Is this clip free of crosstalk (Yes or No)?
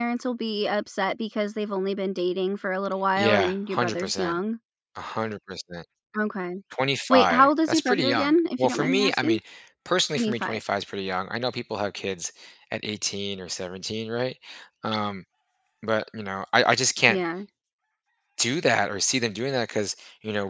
No